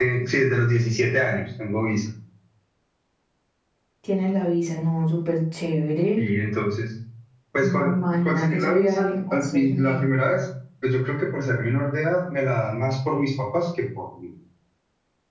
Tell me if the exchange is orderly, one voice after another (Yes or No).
No